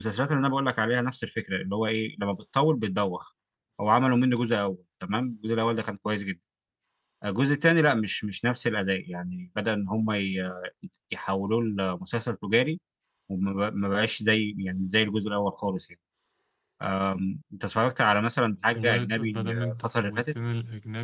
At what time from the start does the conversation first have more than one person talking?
18.8 s

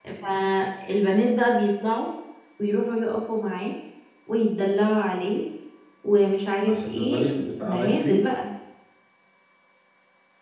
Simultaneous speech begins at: 6.7 s

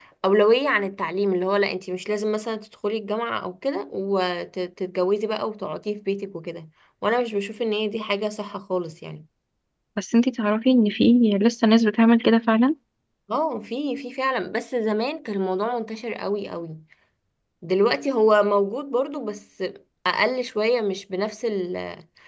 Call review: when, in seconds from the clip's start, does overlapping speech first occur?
none

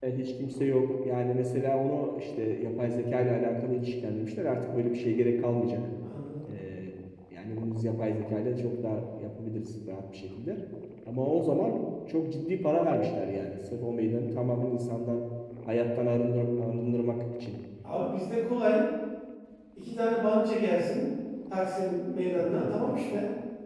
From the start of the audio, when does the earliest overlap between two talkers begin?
none

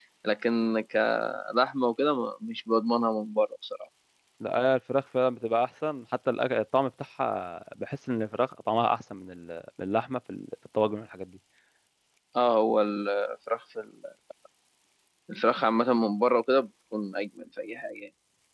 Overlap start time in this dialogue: none

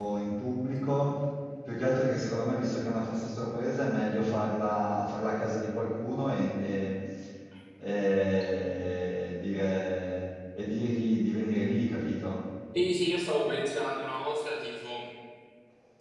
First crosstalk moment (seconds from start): none

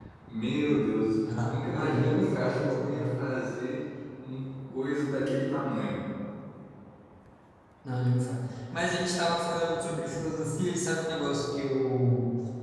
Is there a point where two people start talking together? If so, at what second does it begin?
1.2 s

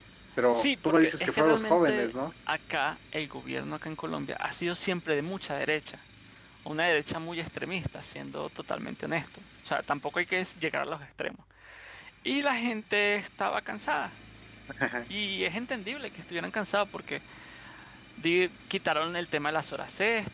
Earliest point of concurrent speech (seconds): 0.5 s

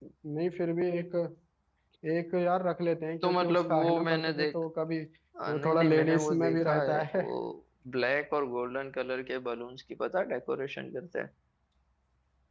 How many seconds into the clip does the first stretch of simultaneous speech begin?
3.2 s

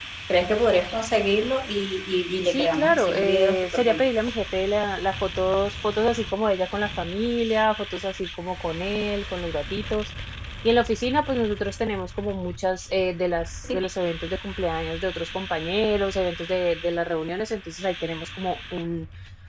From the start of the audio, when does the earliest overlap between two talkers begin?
2.5 s

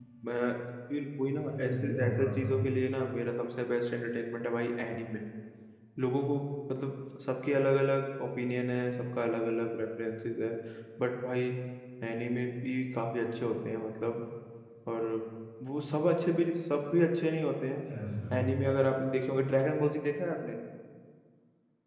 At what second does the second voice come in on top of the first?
1.2 s

